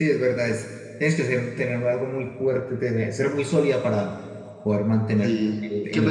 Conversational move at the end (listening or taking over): taking over